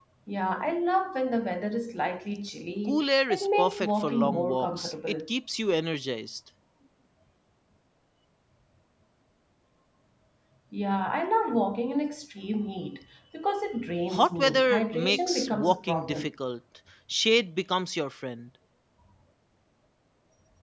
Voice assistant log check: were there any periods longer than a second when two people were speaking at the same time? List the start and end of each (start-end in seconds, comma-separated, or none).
2.9-5.2, 14.1-16.3